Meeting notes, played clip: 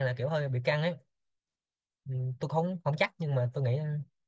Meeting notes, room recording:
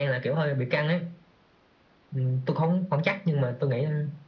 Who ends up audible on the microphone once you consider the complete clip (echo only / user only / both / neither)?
echo only